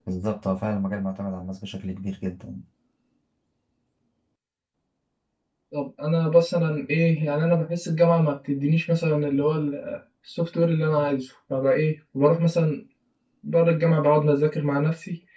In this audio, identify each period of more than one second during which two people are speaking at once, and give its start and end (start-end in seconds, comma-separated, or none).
none